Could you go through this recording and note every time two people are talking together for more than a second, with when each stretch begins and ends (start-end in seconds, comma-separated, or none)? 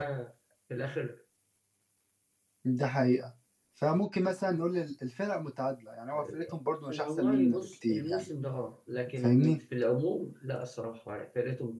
6.9-8.3